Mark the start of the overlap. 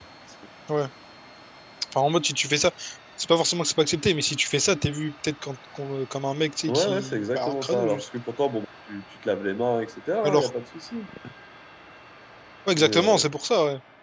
6.7 s

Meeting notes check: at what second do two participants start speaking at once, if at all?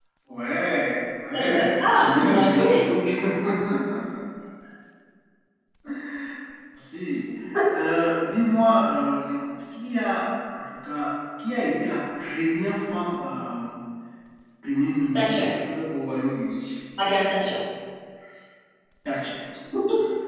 1.4 s

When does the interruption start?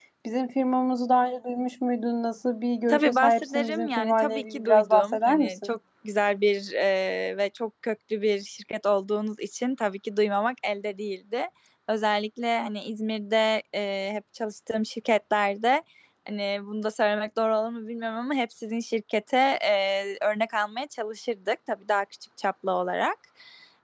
2.9 s

